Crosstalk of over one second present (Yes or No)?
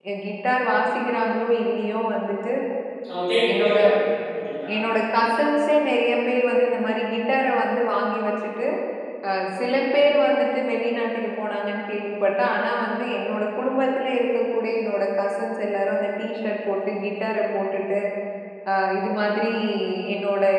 No